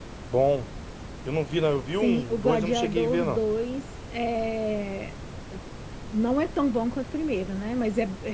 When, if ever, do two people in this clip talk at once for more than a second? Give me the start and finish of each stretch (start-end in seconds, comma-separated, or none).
2.0-3.4